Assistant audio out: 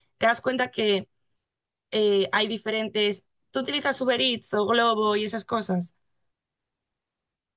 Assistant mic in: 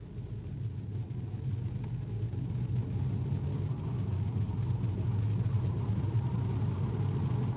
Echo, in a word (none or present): none